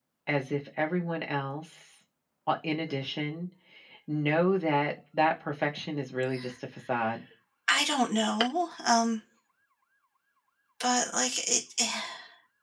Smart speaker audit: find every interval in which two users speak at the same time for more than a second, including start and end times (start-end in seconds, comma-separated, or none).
none